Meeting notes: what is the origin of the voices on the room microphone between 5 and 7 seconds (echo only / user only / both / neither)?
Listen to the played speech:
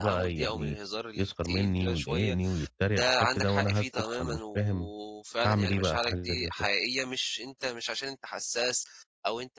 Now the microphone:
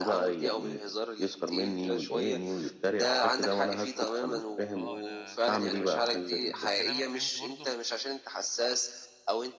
both